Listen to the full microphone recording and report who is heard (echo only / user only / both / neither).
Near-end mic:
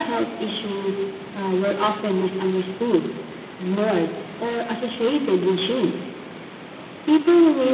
echo only